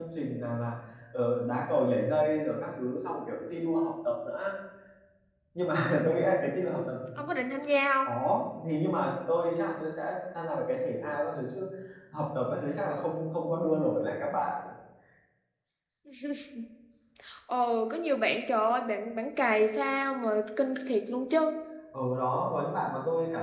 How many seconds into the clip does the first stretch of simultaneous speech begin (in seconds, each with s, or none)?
none